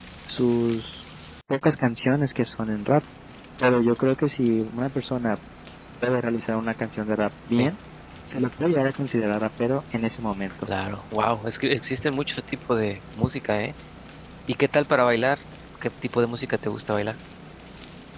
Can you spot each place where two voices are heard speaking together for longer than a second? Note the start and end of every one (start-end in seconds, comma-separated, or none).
none